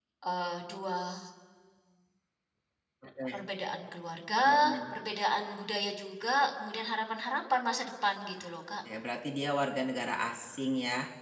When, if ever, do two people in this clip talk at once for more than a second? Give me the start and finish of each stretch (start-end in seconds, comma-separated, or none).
none